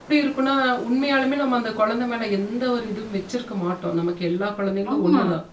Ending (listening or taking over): listening